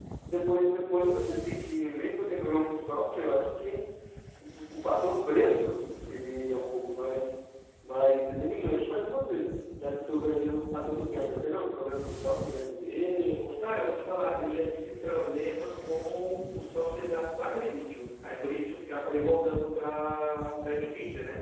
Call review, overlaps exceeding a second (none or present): none